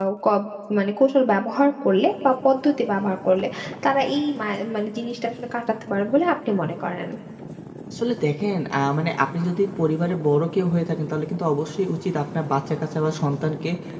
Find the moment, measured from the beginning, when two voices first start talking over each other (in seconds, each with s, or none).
none